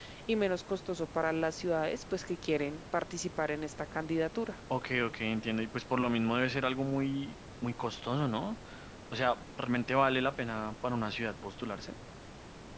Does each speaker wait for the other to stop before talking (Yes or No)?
Yes